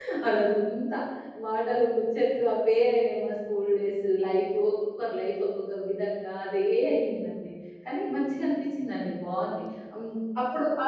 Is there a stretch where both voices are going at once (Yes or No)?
No